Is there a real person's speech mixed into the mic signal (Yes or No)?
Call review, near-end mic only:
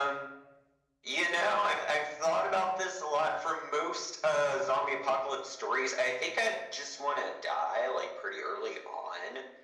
No